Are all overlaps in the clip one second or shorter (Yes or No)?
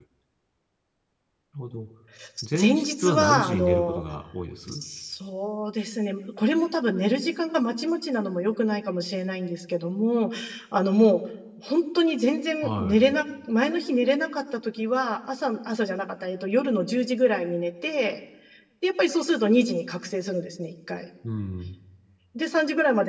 No